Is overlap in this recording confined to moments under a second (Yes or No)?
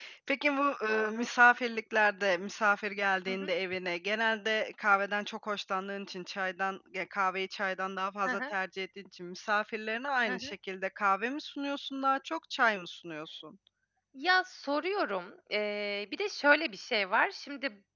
Yes